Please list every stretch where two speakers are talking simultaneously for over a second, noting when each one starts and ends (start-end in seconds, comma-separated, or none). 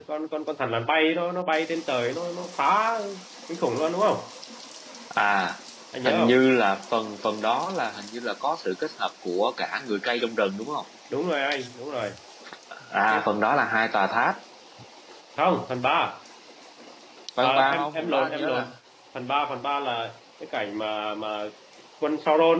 17.4-18.6